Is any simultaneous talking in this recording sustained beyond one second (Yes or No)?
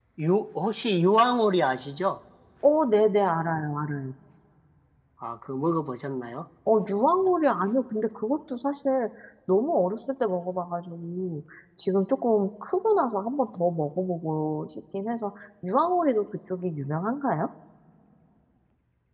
No